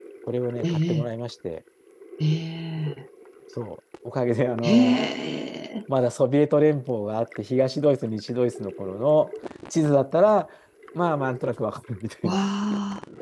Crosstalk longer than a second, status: none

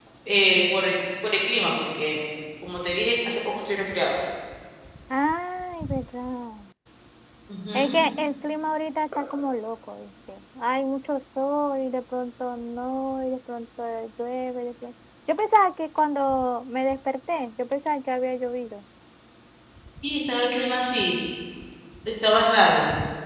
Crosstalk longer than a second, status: none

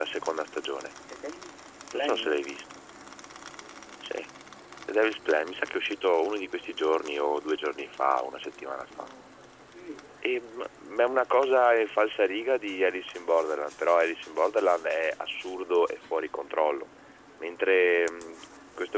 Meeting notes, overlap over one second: none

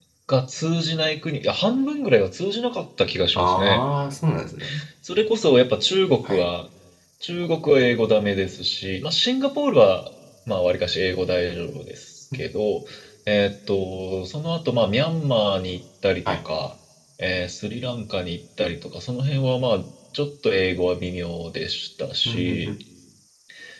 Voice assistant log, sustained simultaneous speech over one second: none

